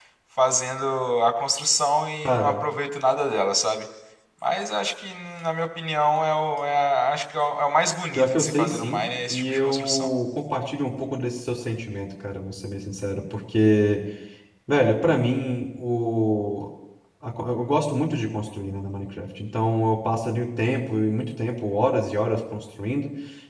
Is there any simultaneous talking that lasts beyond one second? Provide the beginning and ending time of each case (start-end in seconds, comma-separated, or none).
8.1-10.1